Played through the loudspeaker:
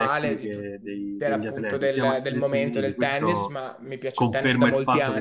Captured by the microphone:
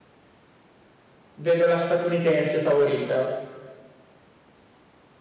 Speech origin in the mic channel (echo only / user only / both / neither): user only